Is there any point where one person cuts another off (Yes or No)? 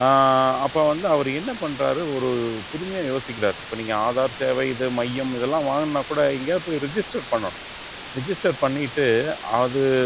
No